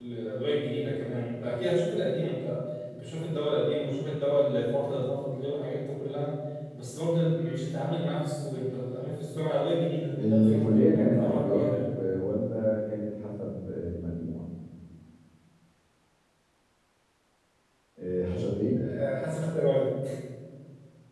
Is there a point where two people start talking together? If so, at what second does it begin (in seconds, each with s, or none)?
10.2 s